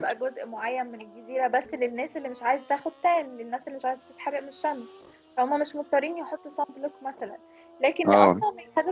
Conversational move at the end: listening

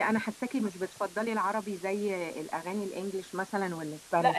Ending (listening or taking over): taking over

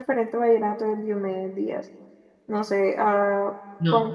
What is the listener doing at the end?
listening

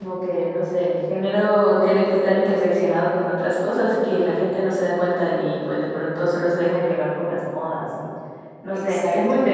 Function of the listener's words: taking over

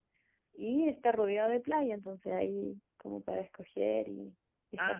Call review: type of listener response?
taking over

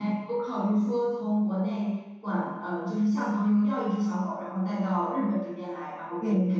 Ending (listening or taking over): listening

